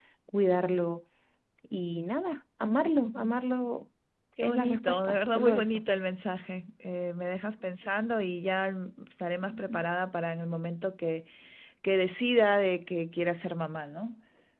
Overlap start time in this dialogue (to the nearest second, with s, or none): 4 s